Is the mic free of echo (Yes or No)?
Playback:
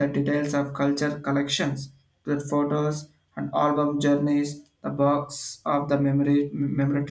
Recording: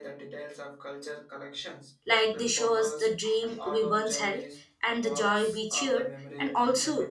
No